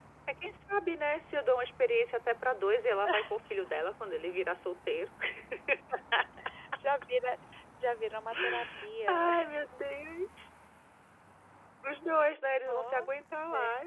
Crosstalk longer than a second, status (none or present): none